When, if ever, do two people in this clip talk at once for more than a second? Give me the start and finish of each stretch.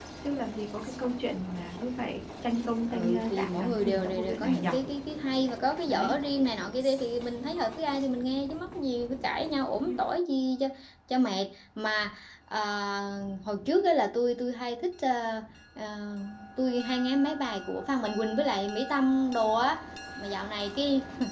2.9-4.7

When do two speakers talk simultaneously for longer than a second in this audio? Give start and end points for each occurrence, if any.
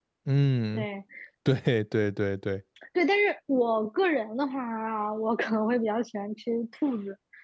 none

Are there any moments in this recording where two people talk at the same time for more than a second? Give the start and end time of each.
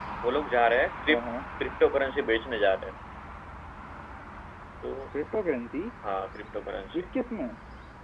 none

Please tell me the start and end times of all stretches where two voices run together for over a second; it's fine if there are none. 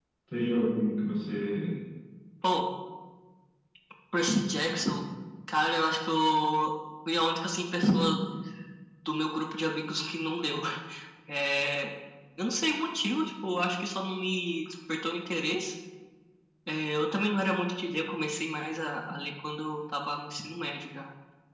none

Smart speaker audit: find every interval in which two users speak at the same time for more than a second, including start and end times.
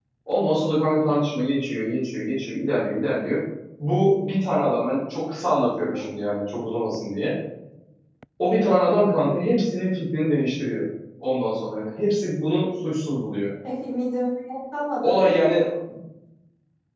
none

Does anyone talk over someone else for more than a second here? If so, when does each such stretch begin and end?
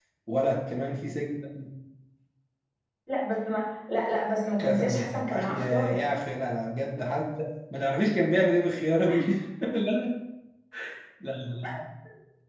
4.6-6.0

